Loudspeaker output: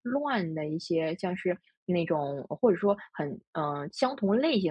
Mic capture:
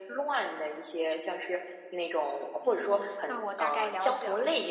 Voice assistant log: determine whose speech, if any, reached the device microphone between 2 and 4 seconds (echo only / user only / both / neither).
both